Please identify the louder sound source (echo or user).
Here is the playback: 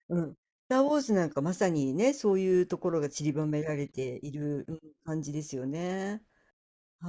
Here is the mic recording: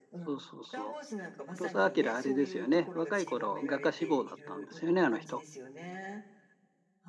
user